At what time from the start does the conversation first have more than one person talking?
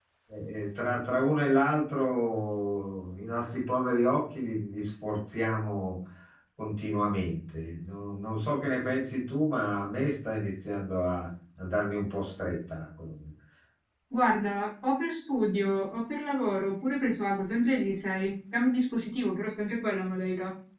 none

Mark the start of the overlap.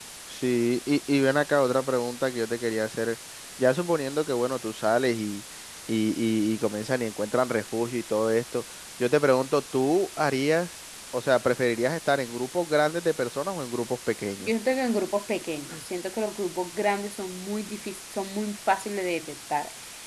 none

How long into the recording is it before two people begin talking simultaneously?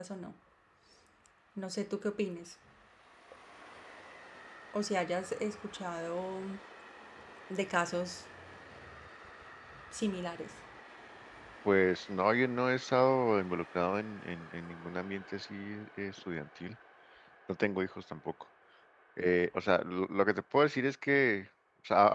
none

